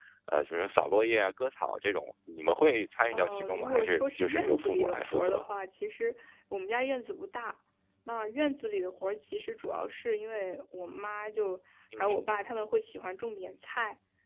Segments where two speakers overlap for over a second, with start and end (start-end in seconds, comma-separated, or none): 3.1-5.4